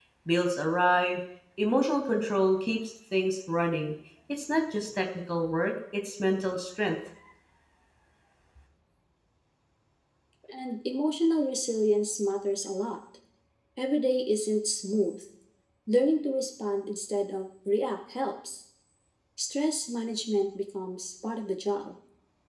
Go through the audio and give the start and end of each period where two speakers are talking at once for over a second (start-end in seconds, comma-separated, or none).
none